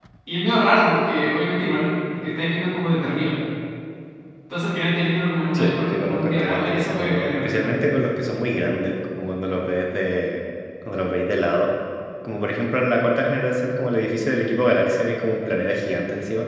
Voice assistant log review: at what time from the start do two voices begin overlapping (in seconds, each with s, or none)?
5.5 s